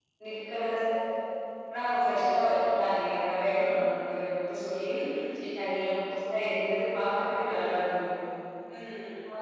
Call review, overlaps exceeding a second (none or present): none